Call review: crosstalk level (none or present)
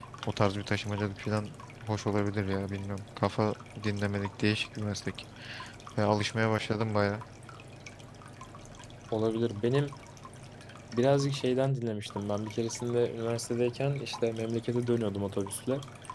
none